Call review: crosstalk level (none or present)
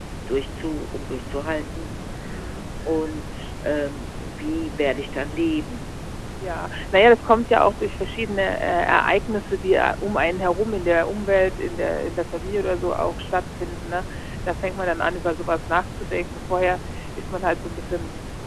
none